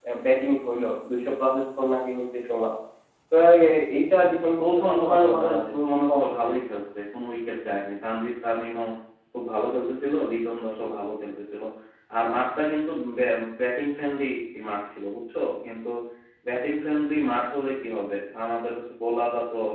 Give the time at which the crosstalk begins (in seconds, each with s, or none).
4.6 s